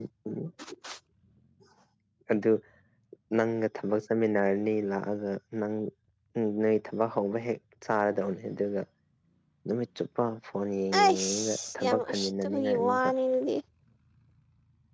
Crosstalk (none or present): present